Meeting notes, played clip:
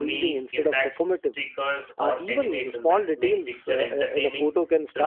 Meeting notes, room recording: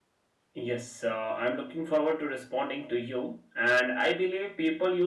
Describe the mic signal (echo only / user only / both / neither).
user only